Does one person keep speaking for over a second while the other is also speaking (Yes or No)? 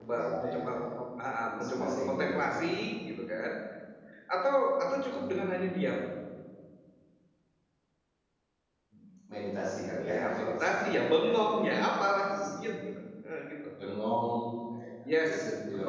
Yes